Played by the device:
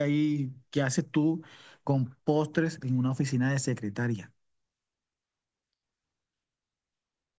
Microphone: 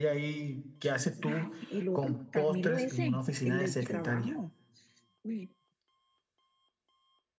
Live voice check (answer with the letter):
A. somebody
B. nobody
A